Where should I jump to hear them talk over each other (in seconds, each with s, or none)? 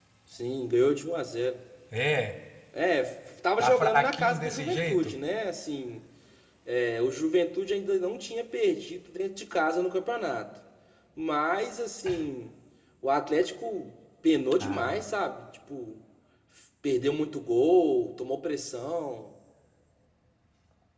3.6 s